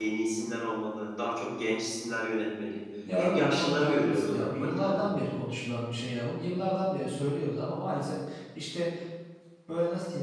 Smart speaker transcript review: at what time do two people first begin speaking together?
3.0 s

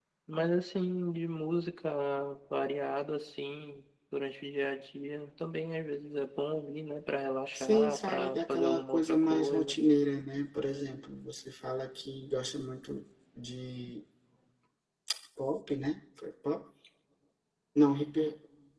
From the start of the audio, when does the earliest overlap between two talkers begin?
7.5 s

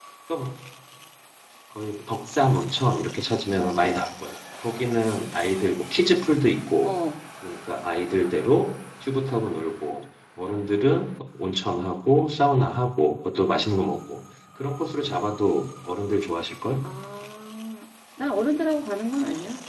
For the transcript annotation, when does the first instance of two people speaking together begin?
none

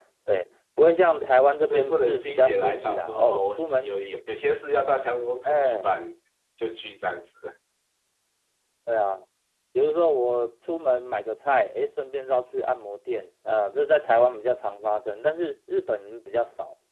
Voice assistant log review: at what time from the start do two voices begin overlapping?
1.7 s

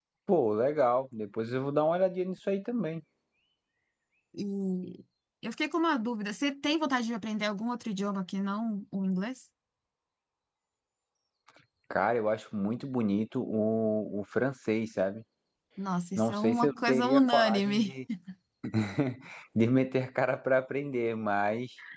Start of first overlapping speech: 16.2 s

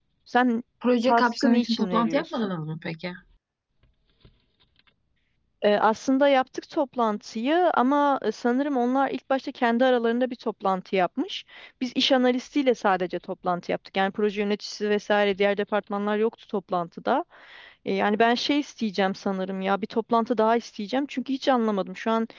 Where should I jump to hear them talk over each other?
1.1 s

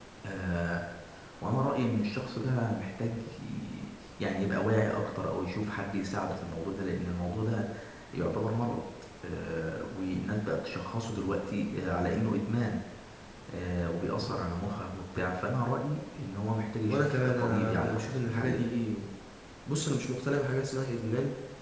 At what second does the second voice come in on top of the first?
16.9 s

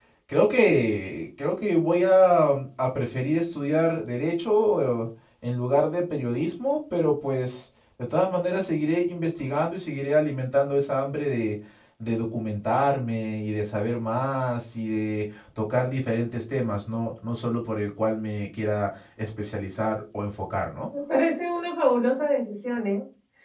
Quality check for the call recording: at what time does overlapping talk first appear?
none

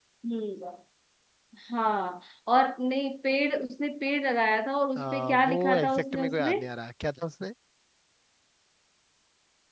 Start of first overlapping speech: 5.0 s

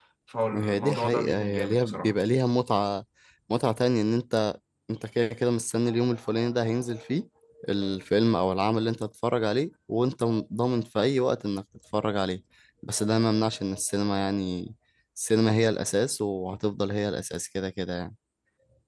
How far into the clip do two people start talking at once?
0.5 s

